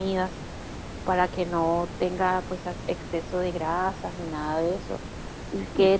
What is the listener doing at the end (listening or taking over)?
listening